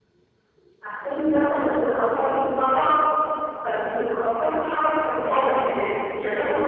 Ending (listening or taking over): listening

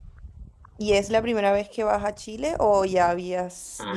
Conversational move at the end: taking over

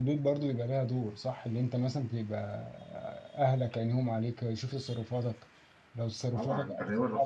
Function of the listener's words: taking over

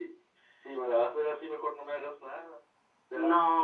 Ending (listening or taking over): taking over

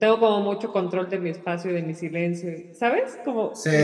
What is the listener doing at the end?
taking over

